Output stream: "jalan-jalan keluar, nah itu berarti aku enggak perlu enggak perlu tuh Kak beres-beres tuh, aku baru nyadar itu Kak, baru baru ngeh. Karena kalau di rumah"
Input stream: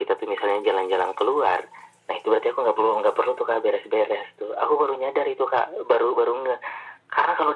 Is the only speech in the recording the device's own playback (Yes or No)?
Yes